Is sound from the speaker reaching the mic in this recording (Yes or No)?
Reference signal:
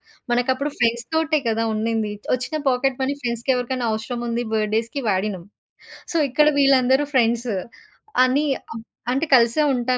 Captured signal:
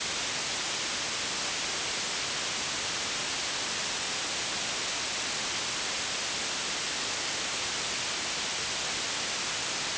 No